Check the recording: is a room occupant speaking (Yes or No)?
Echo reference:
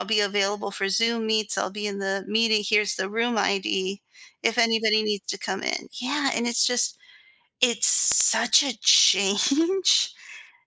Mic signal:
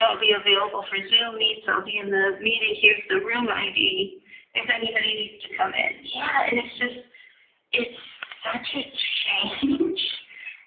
No